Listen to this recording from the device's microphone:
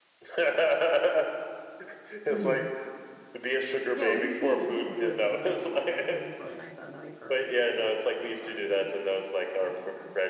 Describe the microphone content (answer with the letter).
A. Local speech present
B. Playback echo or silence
A